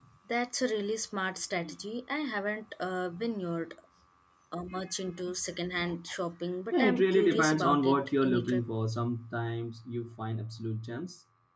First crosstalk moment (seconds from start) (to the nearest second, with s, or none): 7 s